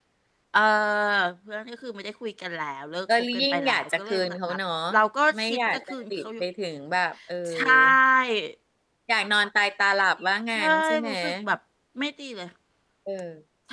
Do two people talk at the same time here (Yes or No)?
Yes